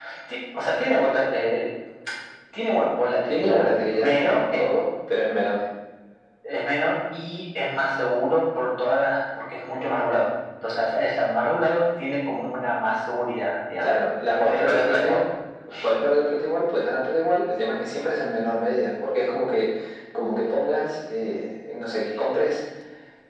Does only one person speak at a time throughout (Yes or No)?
No